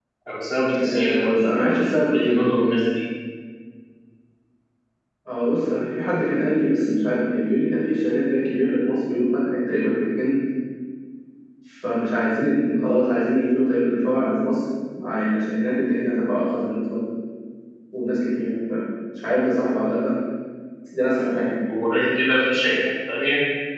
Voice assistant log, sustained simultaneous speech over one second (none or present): present